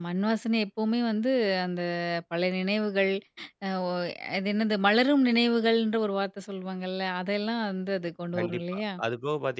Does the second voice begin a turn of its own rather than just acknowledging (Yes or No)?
Yes